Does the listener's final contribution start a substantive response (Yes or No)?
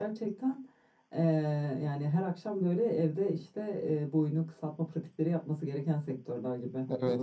Yes